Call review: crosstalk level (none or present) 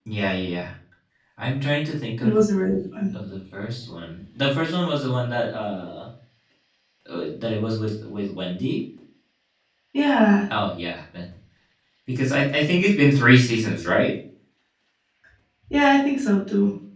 none